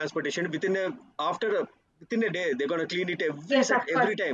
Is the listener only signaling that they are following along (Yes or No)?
No